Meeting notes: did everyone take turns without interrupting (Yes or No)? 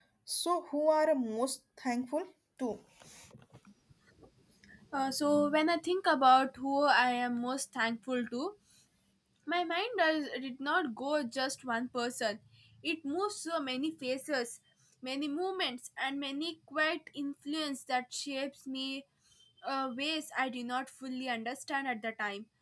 Yes